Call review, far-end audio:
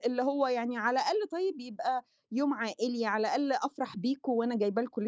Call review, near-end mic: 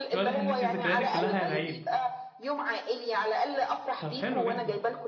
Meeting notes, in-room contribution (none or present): present